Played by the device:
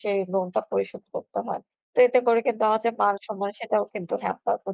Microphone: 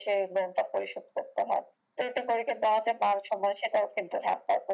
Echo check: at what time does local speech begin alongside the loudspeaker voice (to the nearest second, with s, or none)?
none